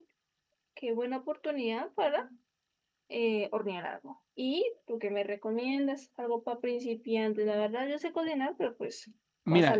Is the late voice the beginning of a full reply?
Yes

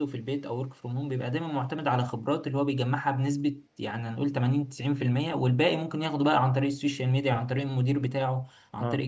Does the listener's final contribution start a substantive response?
No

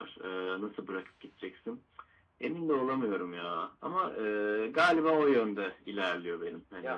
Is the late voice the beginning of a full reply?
Yes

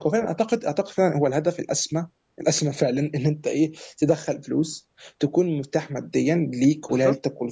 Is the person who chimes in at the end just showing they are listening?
No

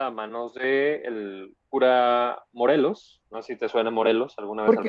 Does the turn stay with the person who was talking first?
No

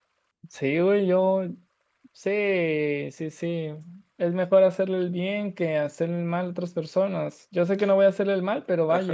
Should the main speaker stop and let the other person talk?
Yes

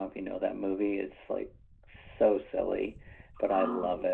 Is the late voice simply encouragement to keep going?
Yes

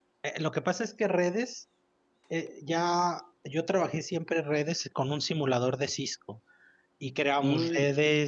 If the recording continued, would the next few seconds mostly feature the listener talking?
No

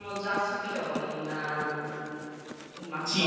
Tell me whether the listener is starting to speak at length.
Yes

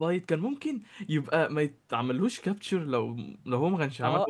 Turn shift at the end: Yes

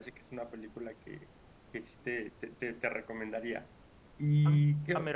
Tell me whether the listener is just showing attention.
No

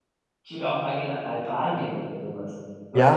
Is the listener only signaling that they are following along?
No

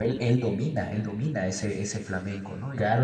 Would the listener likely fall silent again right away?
No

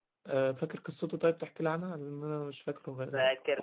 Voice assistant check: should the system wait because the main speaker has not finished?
No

